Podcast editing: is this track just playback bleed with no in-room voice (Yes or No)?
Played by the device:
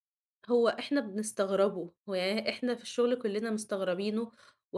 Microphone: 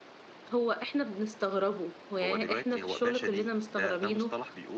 No